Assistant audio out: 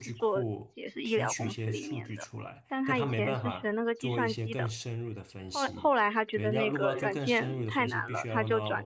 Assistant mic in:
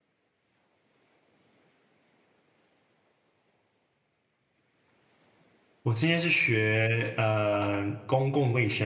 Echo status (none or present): none